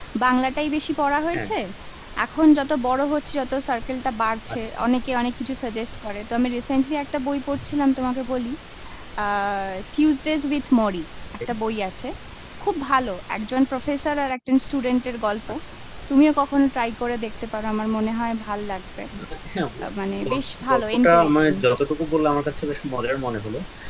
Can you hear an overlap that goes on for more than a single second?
Yes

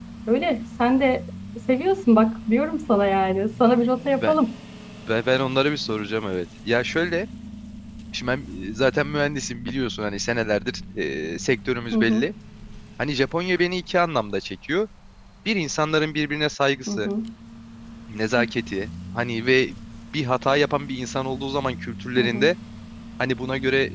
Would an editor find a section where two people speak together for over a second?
No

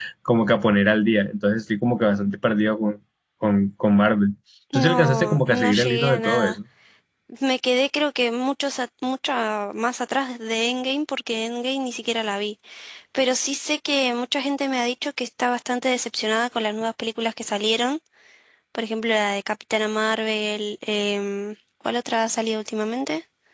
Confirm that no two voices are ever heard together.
No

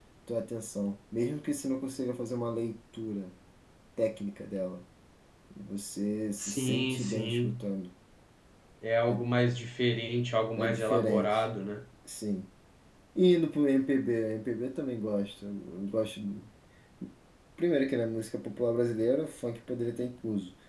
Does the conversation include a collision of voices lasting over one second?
Yes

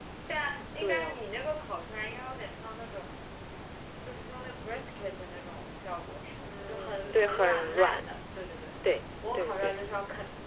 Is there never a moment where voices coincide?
No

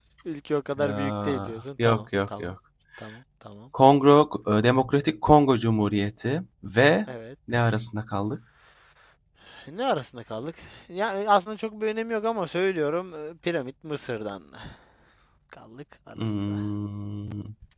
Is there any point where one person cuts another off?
Yes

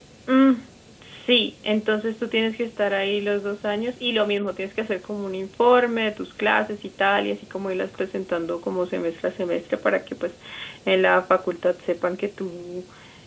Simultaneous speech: No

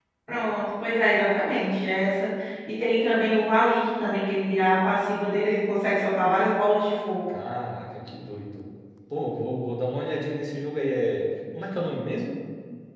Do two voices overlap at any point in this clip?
No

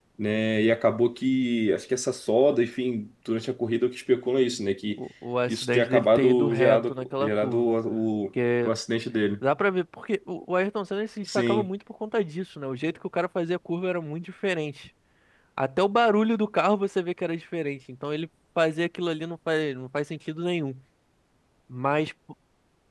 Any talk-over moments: Yes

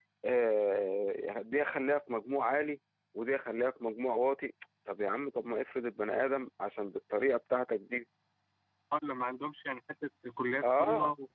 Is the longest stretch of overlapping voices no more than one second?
Yes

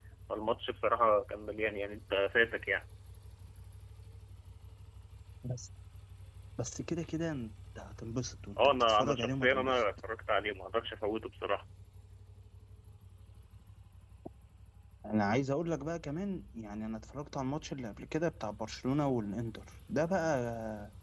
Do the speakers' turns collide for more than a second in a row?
Yes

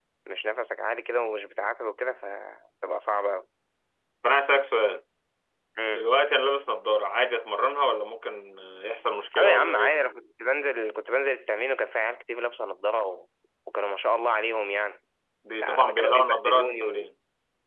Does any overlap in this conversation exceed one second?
Yes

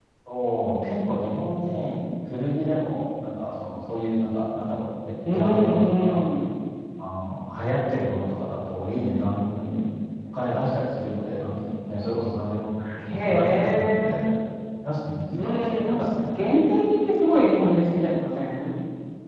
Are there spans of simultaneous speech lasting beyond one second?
Yes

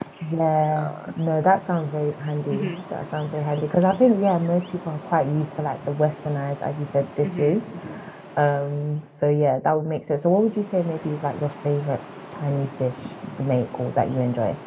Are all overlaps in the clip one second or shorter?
Yes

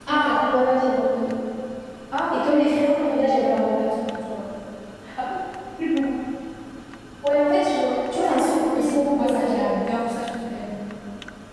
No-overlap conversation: No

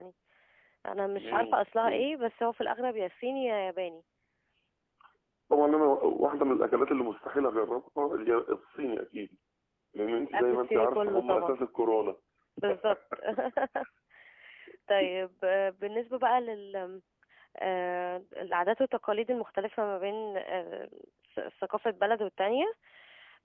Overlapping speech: Yes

